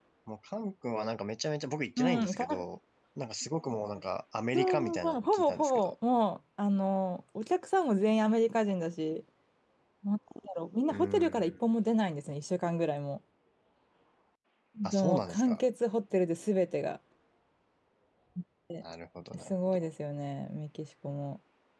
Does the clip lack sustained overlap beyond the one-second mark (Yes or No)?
No